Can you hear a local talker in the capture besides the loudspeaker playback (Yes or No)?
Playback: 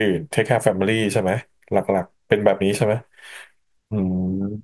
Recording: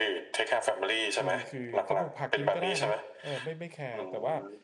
Yes